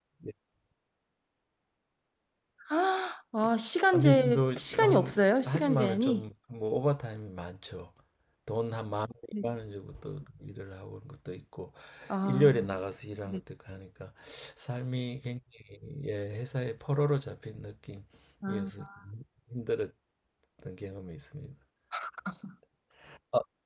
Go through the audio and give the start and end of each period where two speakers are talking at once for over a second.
3.9-6.2

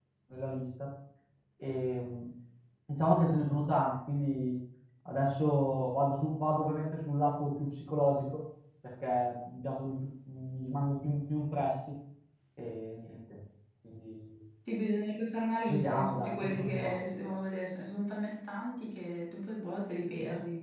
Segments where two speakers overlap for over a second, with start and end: 15.7-17.0

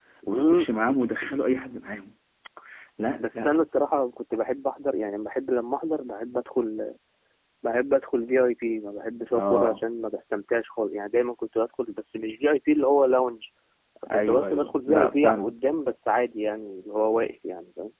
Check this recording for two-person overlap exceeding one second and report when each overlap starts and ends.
14.1-15.6

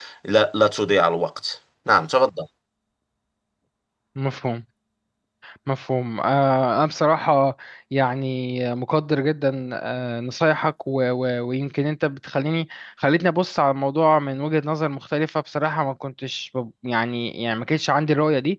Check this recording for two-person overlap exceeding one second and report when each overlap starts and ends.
none

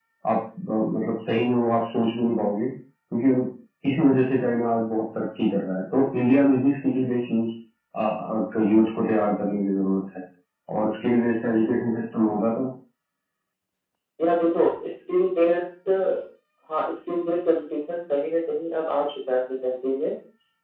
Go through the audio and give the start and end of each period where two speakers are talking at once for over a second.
none

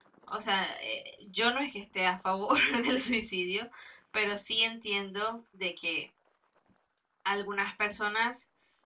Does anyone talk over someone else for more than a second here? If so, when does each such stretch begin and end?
none

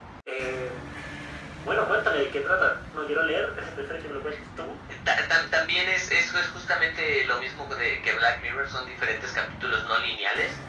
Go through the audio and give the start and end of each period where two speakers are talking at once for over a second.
none

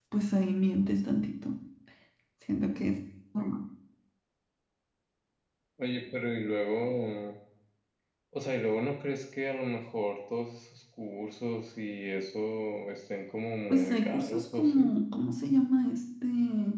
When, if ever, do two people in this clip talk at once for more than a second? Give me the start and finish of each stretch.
13.7-14.9

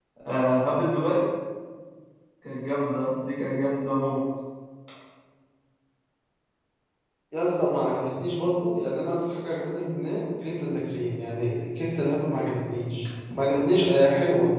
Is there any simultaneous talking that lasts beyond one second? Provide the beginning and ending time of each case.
none

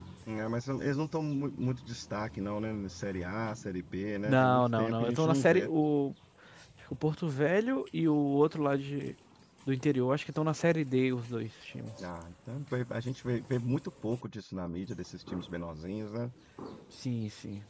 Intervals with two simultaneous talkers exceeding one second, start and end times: 4.2-5.7

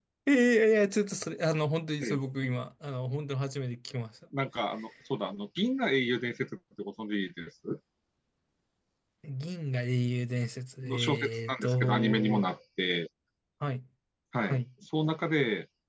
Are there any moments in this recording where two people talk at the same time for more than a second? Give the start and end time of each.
10.8-12.5

